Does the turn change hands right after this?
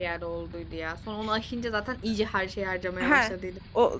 Yes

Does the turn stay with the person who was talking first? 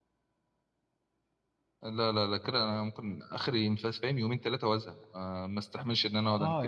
No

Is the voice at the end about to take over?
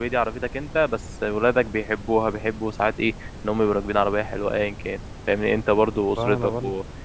No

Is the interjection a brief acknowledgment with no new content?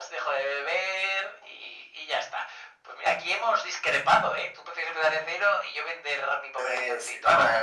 No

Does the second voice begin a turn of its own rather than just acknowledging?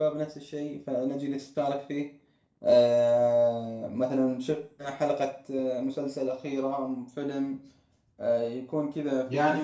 Yes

